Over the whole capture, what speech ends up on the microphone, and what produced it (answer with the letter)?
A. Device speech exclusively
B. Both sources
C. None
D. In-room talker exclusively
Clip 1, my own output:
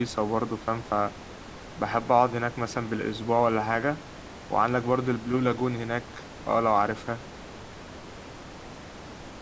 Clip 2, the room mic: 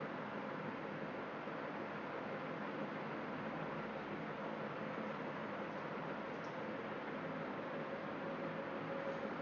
C